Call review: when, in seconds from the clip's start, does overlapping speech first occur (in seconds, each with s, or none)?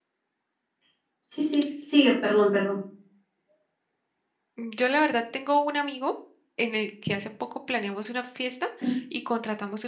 none